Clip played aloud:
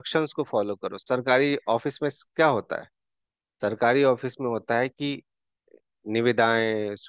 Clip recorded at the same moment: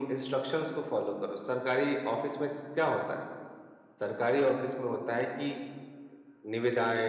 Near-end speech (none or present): none